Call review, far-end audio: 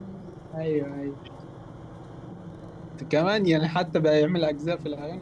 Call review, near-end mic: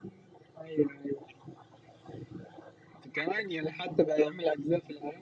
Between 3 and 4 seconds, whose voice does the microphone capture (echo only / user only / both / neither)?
echo only